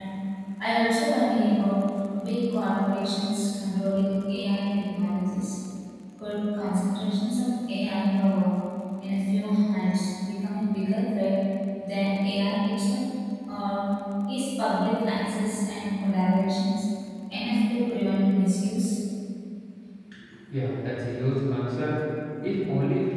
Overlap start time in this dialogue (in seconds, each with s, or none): none